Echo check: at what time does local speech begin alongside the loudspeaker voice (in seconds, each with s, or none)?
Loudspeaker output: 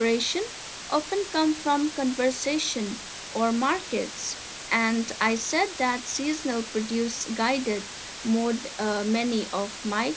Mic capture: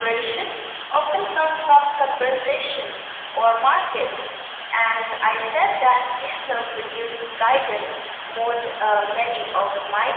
none